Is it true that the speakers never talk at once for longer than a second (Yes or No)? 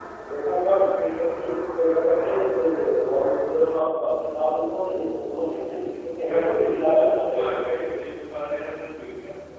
No